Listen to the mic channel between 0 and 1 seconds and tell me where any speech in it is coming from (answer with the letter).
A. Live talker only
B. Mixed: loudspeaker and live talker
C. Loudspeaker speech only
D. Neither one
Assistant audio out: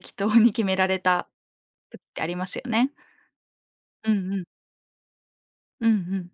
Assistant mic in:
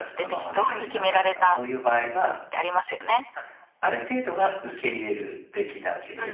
B